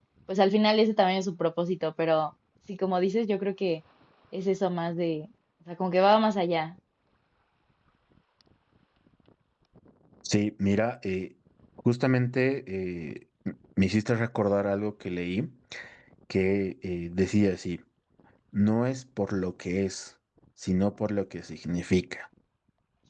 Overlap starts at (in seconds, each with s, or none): none